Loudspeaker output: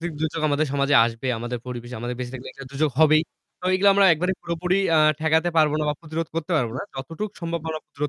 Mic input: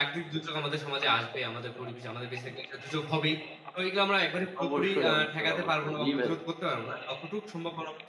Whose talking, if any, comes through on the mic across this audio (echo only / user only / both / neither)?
both